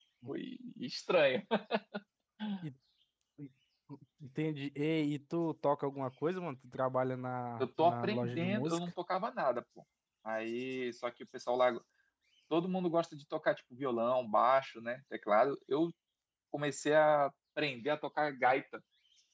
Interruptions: present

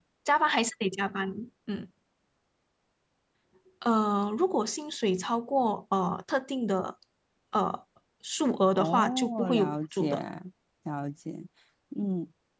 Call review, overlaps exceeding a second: present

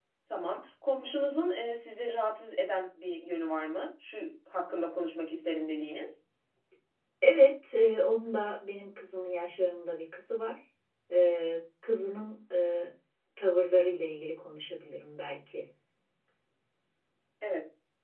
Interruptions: none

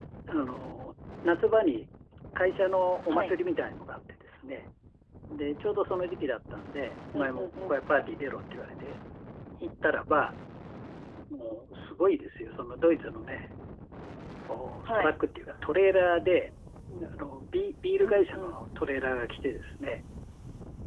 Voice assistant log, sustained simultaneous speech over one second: none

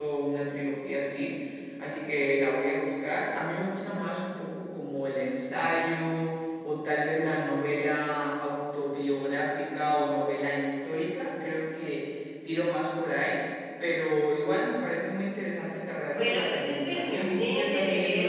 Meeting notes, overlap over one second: present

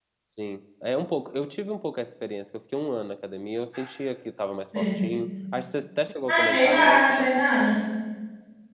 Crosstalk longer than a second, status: present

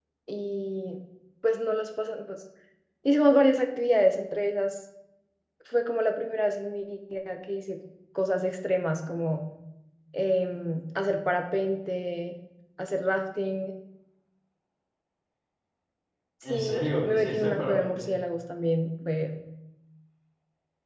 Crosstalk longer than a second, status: present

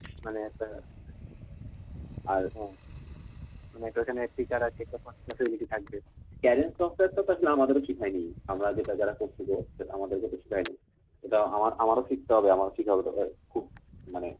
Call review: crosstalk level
none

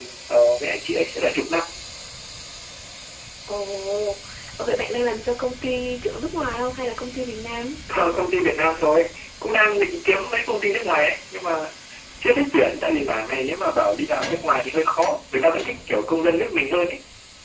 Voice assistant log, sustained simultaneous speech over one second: none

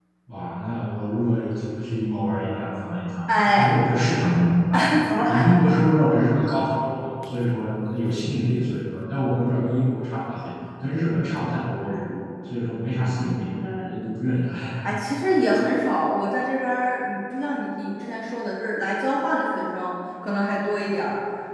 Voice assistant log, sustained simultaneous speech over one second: none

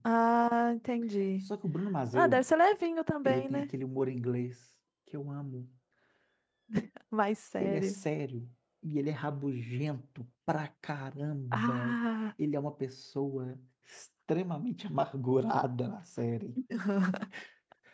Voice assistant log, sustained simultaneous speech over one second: none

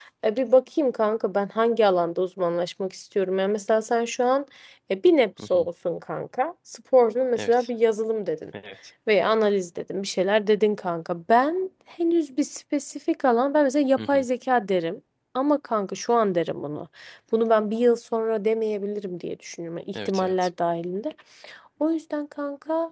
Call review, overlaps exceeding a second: none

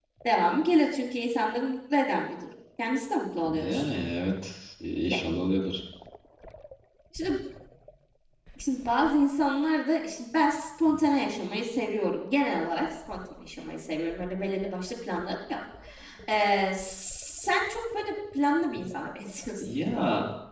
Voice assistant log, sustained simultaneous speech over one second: none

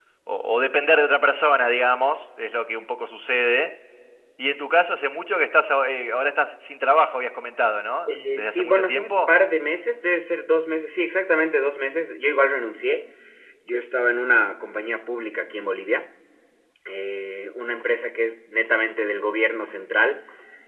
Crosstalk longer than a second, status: present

